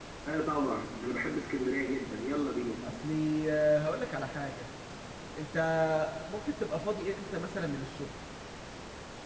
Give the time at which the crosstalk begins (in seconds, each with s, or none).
none